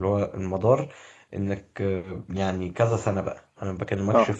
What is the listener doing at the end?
listening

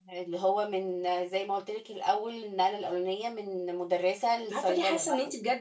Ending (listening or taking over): taking over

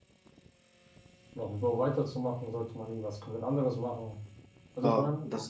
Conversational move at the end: taking over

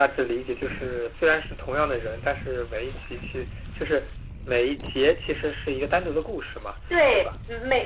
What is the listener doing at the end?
taking over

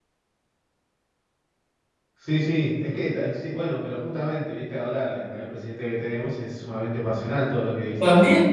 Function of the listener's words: taking over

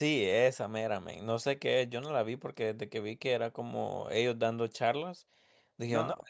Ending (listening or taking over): listening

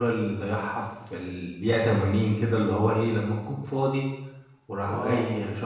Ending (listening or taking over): listening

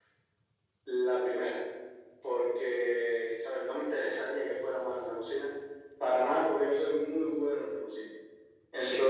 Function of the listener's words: listening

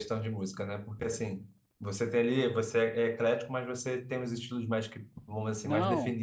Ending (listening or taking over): taking over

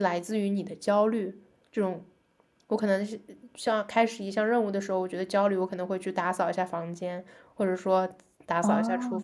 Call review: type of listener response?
taking over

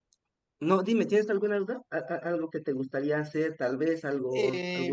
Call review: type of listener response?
taking over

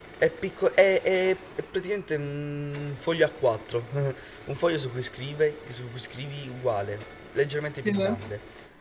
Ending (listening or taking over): listening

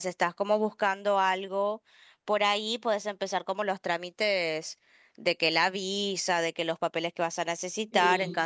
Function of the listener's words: listening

